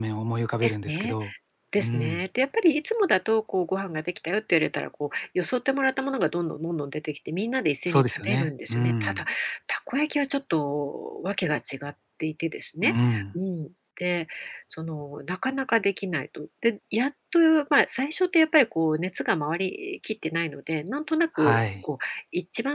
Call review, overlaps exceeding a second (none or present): present